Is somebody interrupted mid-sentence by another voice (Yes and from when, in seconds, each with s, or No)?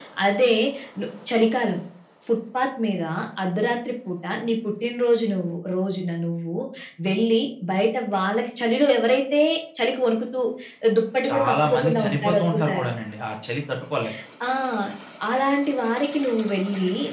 Yes, from 11.3 s